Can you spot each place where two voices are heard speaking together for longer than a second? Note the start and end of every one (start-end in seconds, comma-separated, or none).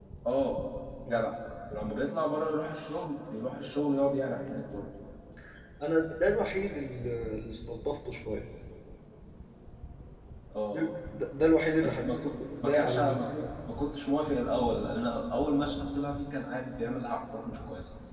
11.8-13.2